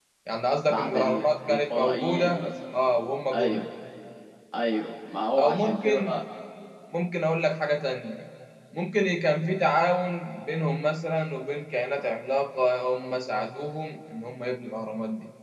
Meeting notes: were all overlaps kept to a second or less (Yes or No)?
No